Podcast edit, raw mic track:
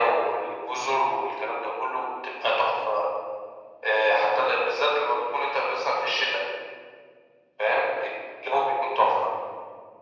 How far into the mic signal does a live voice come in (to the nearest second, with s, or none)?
none